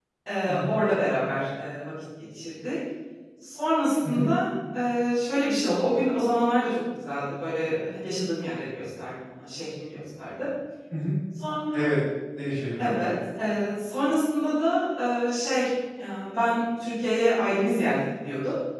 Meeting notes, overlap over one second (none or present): none